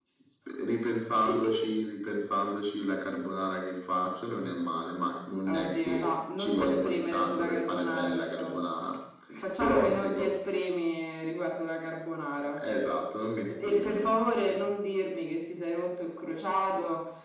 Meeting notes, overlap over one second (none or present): present